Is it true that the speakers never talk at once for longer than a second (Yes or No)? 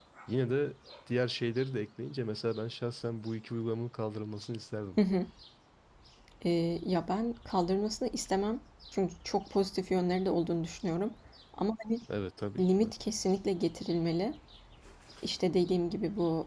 Yes